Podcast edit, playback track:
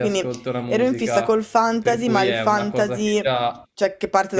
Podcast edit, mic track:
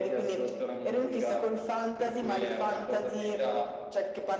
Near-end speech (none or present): none